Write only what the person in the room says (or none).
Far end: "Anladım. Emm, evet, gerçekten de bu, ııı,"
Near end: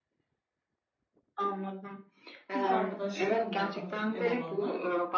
Türk arkadaşlarım var daha çok ev alanlar